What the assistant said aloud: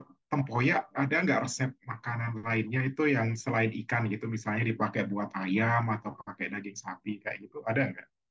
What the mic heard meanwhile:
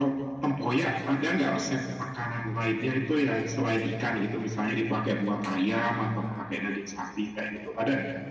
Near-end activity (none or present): none